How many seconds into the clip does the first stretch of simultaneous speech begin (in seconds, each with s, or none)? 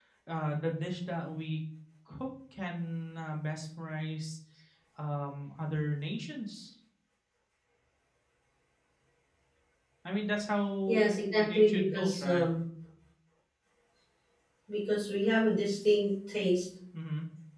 10.9 s